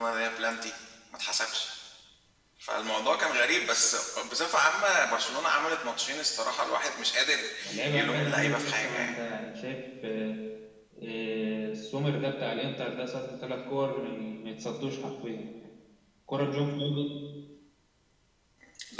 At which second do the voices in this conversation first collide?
7.9 s

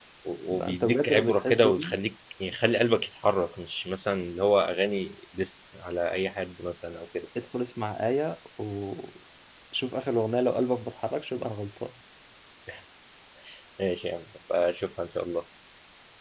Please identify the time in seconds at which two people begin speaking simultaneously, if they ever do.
0.5 s

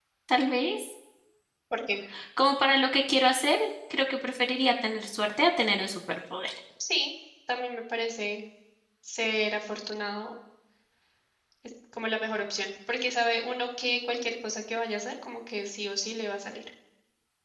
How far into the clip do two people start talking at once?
none

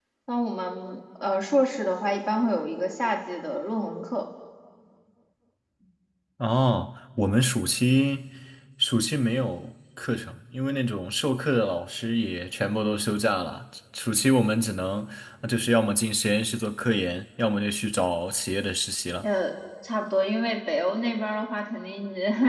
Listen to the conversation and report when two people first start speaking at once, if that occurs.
none

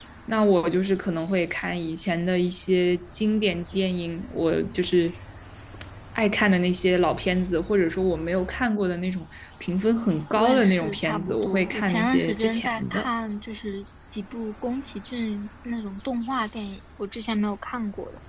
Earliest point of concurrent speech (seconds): 10.4 s

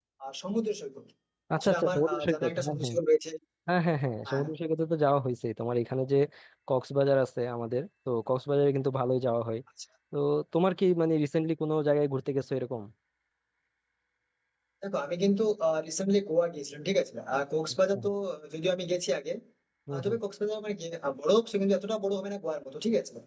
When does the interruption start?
1.6 s

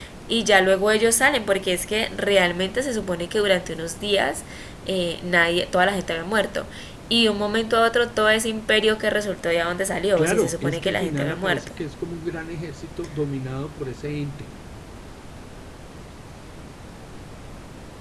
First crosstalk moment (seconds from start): 10.2 s

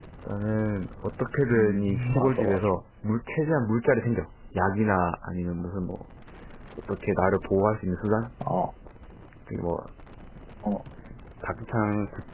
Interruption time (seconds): 1.5 s

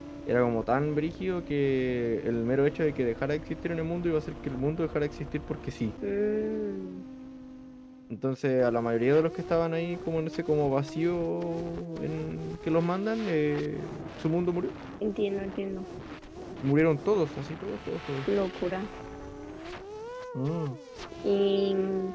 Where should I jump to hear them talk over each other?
none

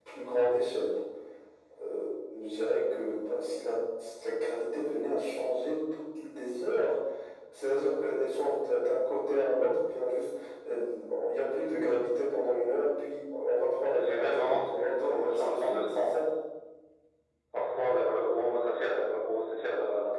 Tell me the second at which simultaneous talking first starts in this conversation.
13.9 s

